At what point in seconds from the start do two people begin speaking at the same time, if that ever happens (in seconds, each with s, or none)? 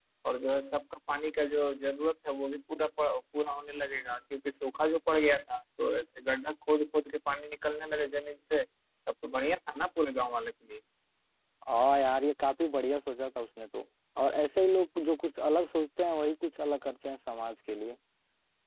none